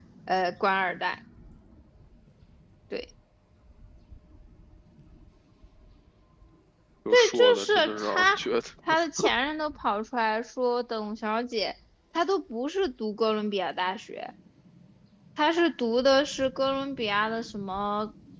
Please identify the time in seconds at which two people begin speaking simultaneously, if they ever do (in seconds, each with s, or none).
7.1 s